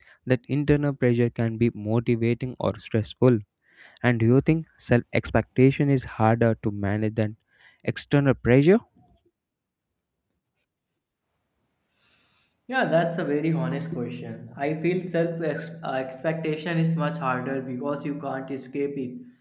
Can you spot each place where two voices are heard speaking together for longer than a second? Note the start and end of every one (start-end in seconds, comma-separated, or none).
none